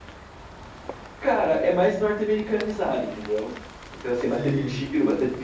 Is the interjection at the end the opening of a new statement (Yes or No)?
No